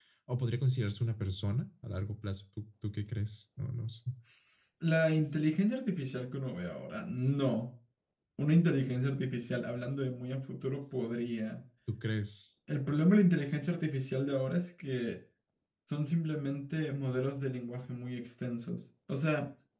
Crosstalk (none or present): none